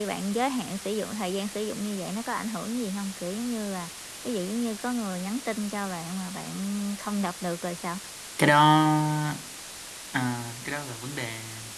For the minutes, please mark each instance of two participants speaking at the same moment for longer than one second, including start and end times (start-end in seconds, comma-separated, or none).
none